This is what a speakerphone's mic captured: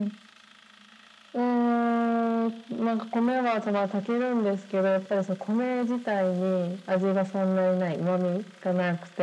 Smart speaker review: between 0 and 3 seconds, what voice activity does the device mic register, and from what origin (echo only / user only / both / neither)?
echo only